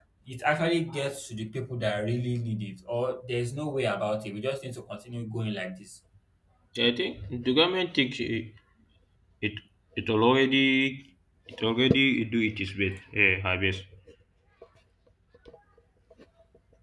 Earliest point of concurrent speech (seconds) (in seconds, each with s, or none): none